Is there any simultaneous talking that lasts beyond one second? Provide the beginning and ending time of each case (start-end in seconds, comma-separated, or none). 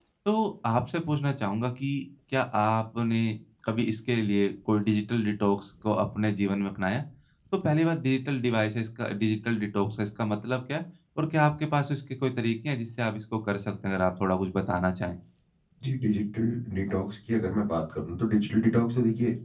none